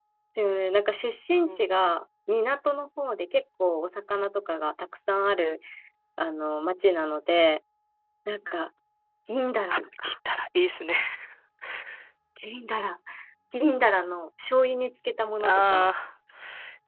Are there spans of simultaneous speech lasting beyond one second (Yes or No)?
No